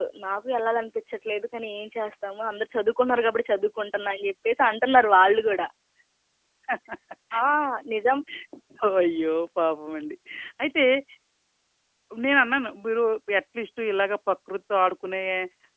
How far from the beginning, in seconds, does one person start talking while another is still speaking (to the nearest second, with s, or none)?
none